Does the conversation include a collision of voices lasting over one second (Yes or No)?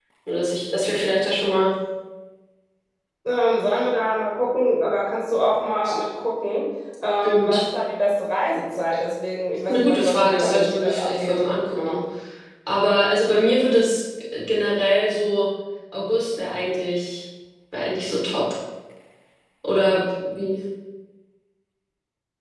Yes